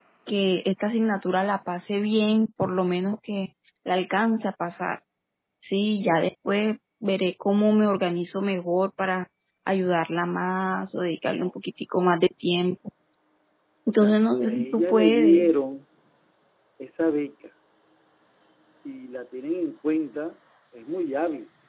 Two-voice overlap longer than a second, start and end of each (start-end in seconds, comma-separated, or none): 13.9-15.6